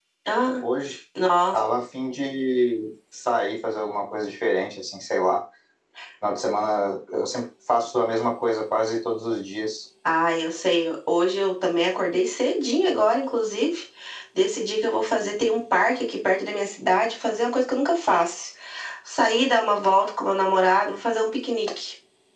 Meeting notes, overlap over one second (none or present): none